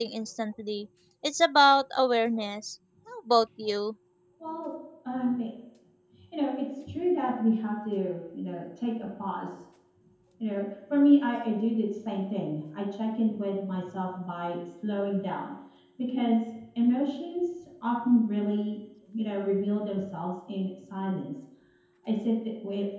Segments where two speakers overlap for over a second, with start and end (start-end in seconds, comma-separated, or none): none